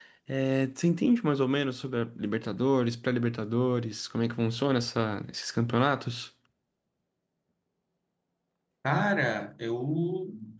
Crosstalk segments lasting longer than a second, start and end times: none

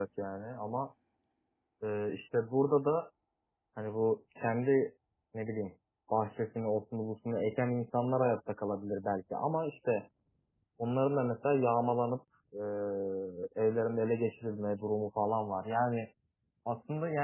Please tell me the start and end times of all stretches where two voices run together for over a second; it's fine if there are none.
none

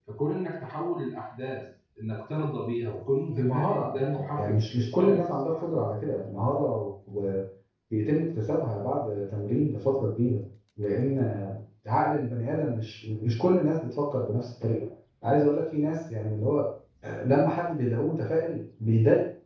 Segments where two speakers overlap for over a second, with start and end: 3.3-5.6

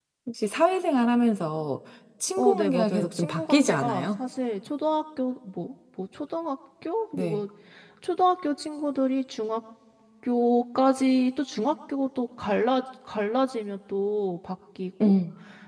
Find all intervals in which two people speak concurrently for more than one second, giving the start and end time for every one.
2.4-4.2

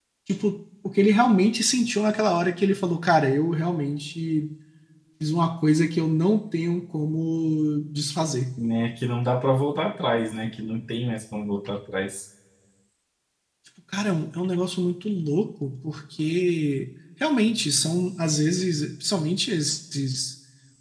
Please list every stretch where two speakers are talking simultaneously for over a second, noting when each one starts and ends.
none

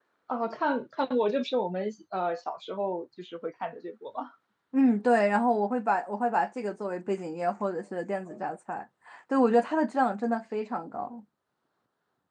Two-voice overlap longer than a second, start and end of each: none

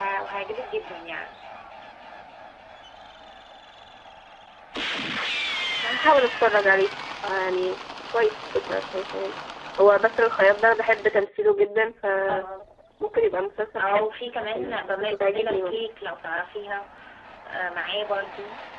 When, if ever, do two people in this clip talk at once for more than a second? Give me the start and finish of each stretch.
14.6-15.8

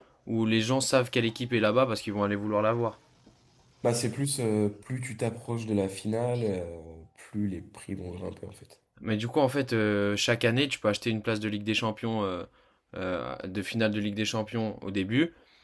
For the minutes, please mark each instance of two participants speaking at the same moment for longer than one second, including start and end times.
none

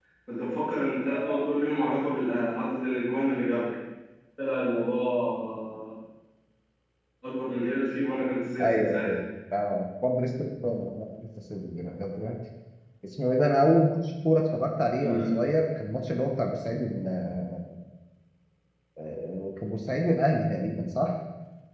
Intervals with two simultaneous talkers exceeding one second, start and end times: none

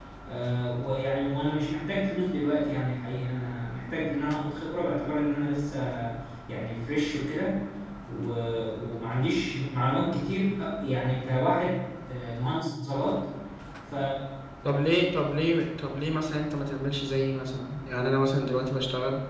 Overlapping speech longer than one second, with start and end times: none

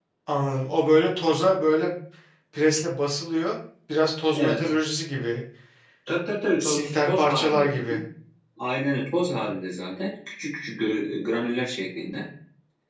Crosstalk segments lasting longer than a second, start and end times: 6.6-8.0

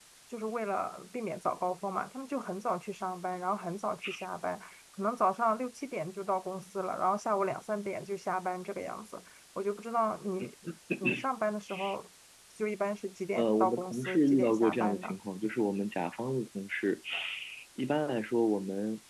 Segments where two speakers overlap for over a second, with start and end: 13.3-15.1

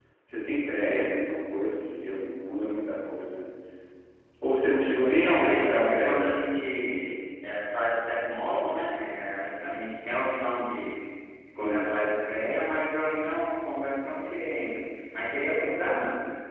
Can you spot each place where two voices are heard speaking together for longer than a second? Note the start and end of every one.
5.1-6.3

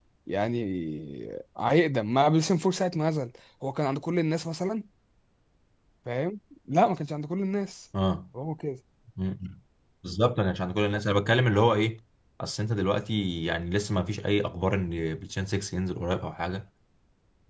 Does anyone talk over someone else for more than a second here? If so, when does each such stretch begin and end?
none

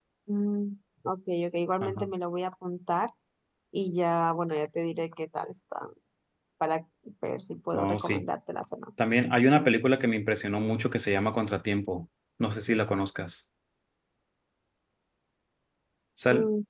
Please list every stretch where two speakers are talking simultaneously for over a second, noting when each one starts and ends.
none

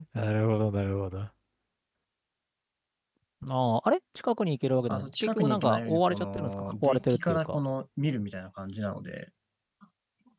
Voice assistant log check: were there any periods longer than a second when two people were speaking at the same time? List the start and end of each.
4.9-7.6

